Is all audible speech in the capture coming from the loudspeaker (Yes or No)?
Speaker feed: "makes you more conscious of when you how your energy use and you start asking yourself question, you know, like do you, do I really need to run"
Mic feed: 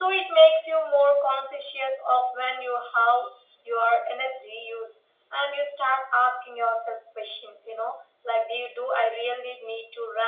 Yes